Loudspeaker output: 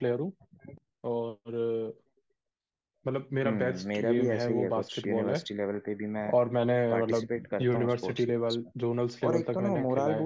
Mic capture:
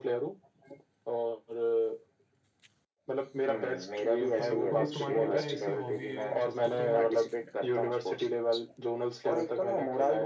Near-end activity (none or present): present